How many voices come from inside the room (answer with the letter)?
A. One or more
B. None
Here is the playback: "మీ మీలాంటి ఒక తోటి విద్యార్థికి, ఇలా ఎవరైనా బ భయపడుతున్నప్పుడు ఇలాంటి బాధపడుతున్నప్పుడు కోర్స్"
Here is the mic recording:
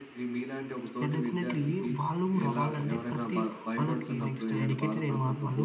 A